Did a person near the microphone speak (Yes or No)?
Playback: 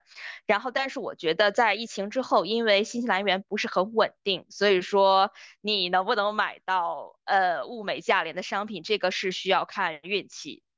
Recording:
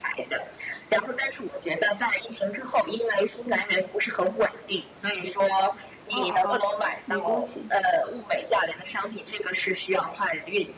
Yes